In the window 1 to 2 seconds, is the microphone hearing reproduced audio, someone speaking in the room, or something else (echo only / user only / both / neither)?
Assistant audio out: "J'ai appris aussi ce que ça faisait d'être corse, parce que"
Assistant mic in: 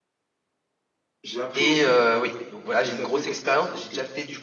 both